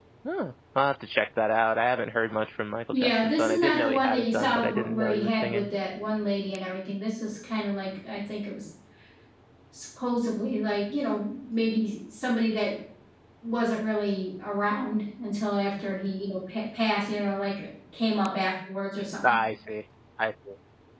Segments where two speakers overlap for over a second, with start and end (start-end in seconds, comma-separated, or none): 2.9-5.7